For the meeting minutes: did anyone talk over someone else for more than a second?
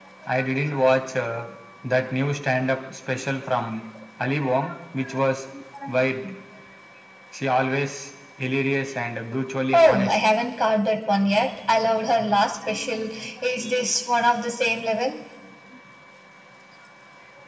No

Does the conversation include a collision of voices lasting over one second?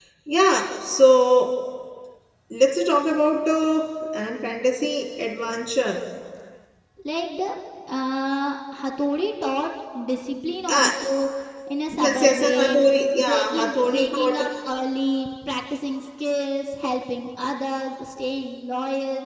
Yes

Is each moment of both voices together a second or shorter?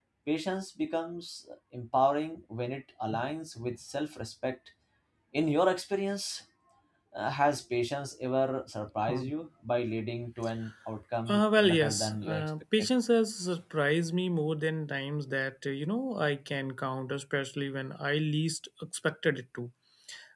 No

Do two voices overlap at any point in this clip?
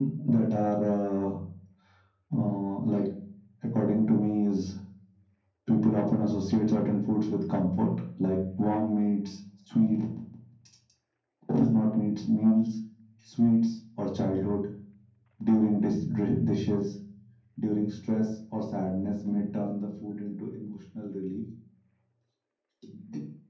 No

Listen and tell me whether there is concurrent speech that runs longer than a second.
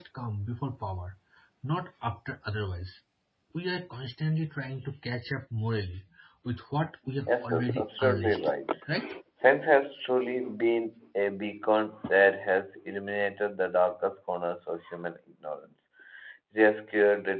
Yes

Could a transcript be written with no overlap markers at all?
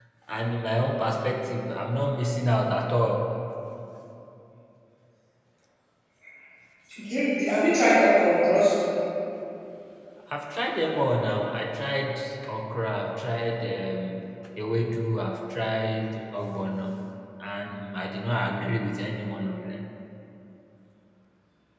Yes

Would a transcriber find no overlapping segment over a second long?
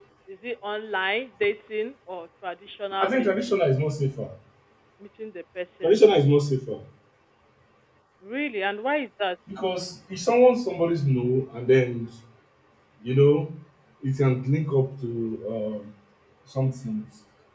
Yes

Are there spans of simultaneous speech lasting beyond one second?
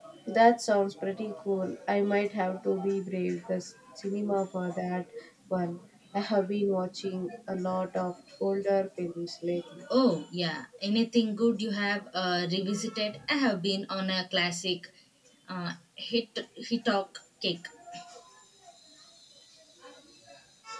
No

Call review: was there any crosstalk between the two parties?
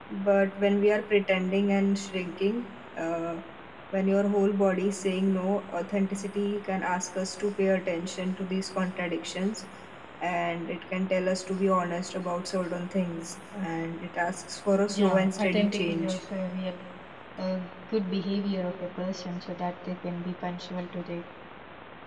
Yes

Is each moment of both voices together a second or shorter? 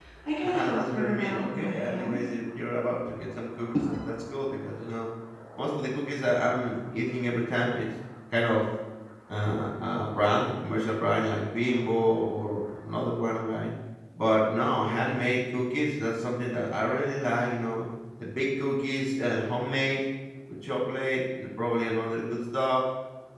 No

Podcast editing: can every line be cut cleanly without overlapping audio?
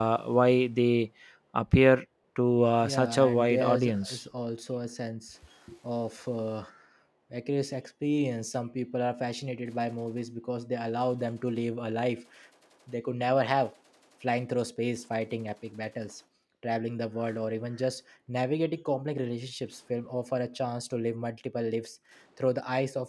No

